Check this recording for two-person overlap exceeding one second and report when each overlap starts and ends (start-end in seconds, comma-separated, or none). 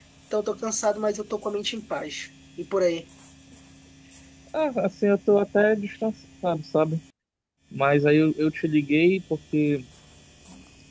none